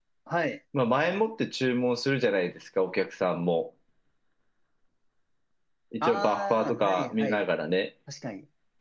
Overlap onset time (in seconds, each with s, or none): 6.0 s